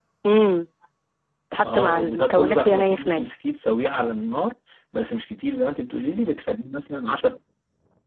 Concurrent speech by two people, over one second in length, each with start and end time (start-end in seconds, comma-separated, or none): 1.7-3.3